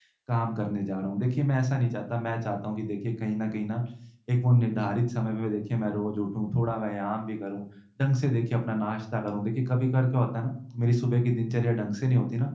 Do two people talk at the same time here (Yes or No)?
No